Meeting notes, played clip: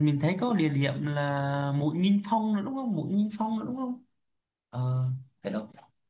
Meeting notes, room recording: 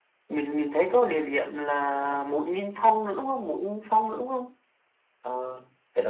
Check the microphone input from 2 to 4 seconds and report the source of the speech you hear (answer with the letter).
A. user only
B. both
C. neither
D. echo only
D